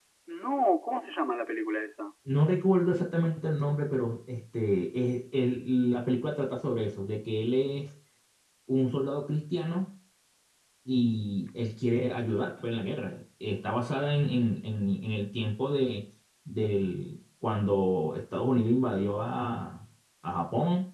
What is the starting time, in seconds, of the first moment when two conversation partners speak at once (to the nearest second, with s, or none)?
none